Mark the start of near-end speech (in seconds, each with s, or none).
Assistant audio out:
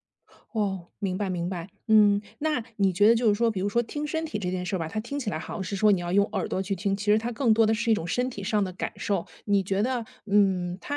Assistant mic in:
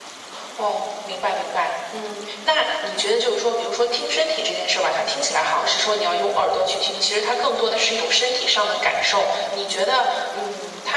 none